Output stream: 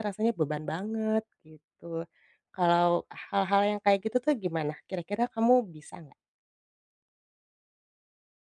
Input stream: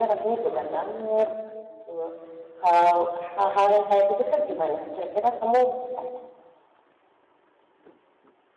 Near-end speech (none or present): present